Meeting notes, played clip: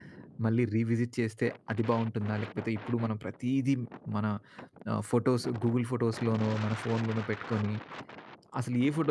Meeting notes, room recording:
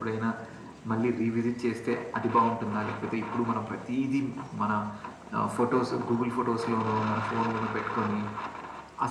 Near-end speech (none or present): none